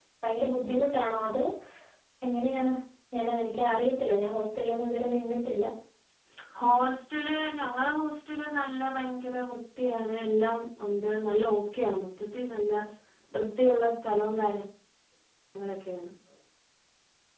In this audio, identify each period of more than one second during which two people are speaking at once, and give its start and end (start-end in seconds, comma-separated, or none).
none